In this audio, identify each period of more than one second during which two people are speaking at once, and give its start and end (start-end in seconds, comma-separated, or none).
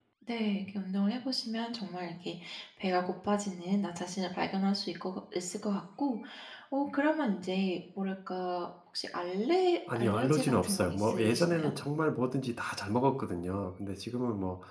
9.9-11.7